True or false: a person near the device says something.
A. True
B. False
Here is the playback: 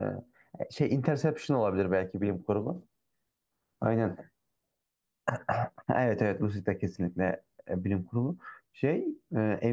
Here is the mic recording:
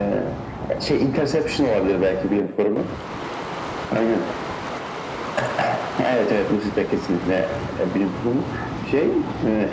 B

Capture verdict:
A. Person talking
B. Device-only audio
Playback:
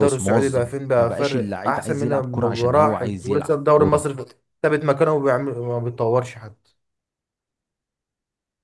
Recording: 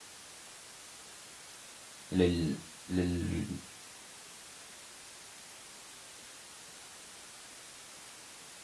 A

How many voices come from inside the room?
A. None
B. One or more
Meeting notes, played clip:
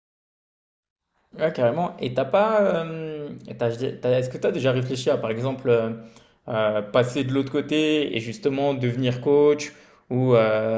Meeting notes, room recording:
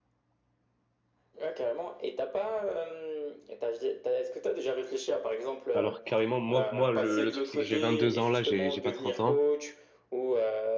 B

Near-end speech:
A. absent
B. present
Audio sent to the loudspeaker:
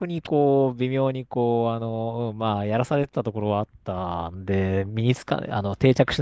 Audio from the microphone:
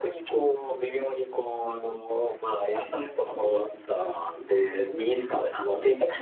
A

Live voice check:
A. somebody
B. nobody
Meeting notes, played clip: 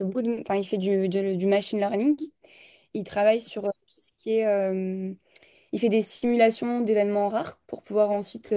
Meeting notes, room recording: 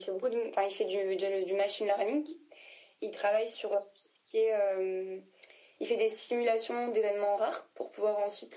B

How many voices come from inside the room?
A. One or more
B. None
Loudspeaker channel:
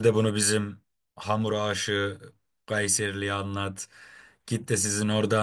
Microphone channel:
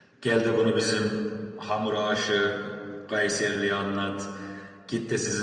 B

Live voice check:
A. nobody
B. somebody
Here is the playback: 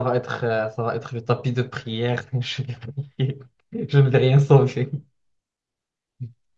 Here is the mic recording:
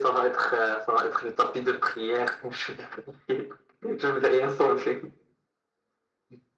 A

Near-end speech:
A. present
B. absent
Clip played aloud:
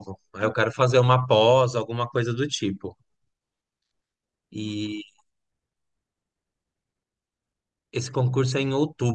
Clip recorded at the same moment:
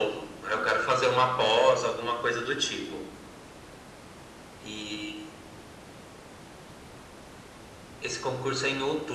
B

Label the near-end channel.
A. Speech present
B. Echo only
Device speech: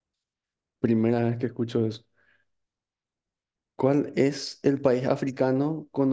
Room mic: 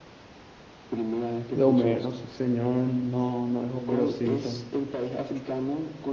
A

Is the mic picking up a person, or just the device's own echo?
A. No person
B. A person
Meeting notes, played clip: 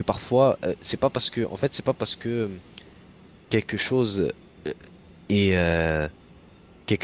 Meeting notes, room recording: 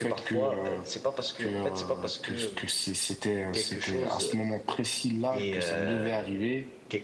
B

